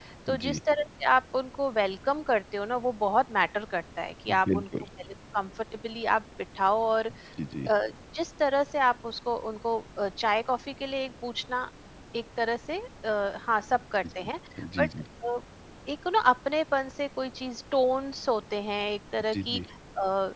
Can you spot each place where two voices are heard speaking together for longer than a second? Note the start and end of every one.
none

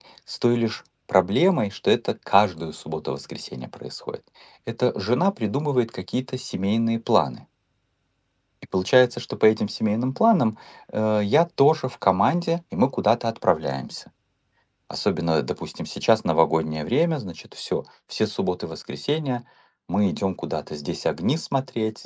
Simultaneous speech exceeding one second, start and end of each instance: none

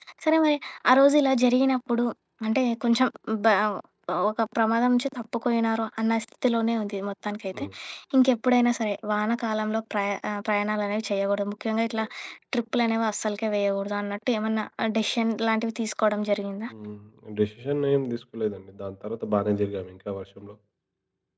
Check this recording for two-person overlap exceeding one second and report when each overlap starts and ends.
none

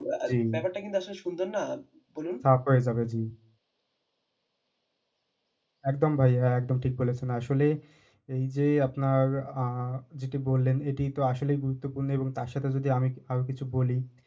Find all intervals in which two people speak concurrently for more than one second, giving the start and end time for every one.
none

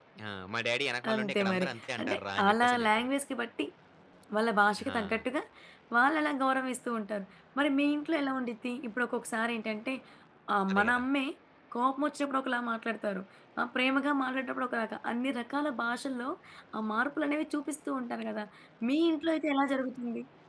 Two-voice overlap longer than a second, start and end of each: 1.1-3.1

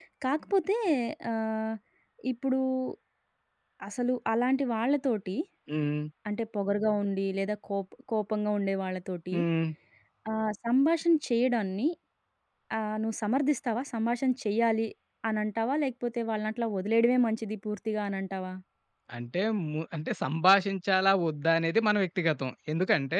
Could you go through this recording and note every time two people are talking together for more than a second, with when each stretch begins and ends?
none

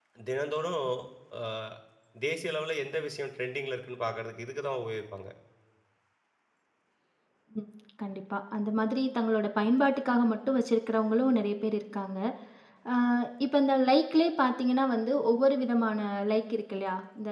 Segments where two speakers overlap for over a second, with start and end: none

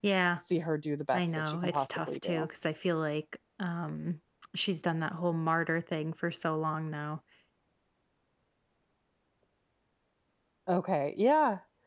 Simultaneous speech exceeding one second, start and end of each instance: 1.1-2.5

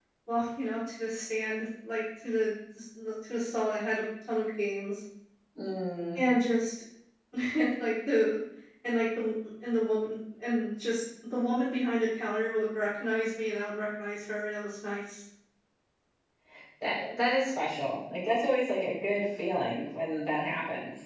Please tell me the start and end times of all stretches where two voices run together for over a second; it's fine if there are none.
none

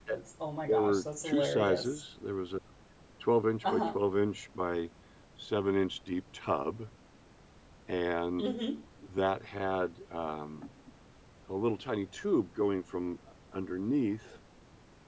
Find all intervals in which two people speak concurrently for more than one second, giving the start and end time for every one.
0.7-2.0

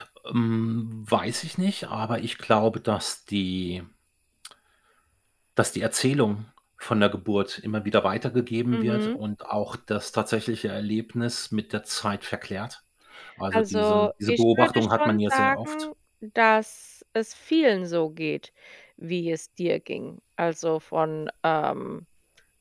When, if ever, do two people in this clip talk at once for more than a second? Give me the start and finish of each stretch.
13.5-15.8

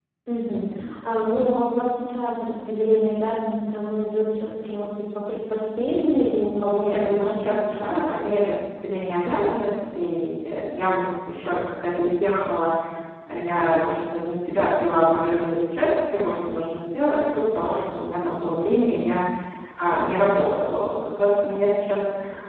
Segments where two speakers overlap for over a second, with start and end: 6.8-8.3

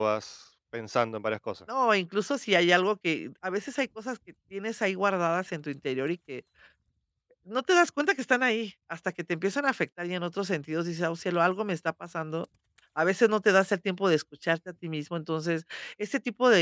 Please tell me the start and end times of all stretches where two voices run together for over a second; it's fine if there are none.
none

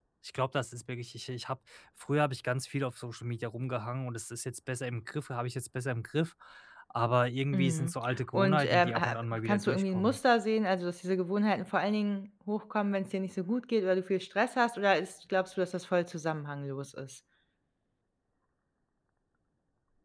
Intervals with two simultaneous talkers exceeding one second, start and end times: 8.3-10.2

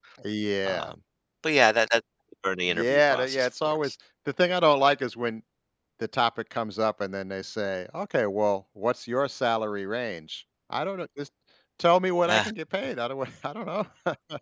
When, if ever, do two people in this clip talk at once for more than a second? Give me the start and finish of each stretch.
2.7-3.9

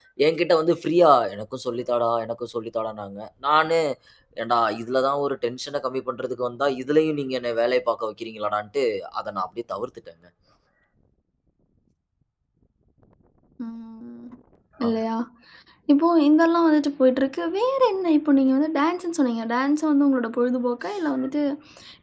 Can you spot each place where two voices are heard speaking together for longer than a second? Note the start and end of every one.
none

